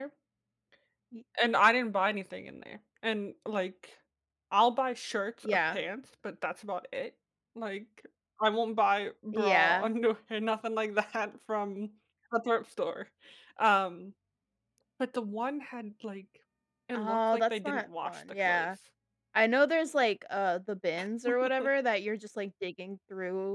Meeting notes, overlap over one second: present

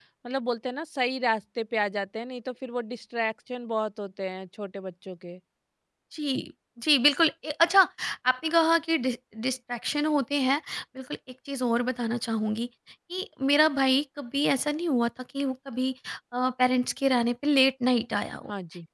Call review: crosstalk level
none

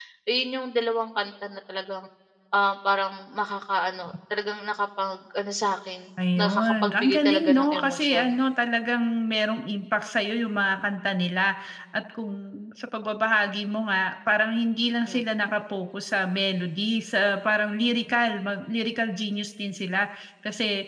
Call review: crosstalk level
present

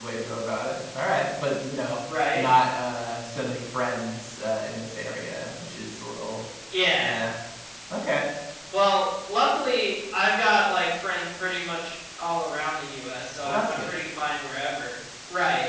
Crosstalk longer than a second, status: none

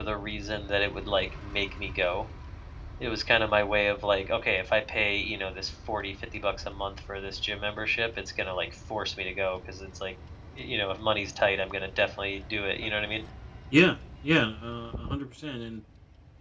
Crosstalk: none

